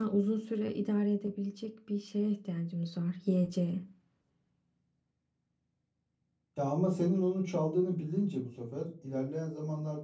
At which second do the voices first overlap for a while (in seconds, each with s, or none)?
none